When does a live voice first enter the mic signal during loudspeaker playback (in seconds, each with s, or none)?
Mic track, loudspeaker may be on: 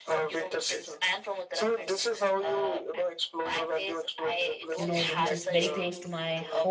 4.7 s